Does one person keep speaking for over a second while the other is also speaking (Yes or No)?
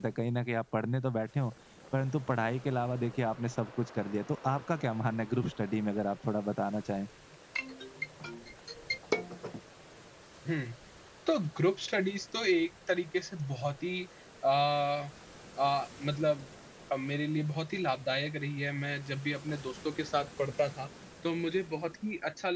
No